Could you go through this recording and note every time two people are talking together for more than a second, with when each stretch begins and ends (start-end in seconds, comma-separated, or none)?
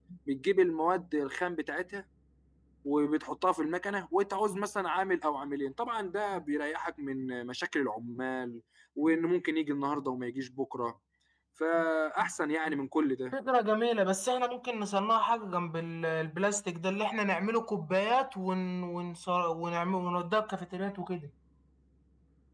none